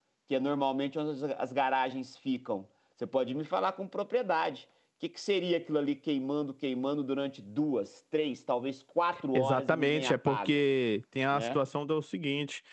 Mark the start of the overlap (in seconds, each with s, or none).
9.3 s